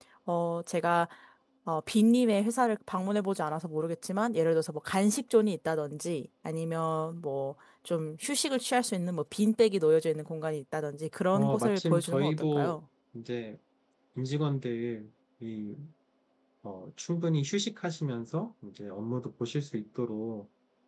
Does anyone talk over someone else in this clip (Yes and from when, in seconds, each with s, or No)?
Yes, from 11.3 s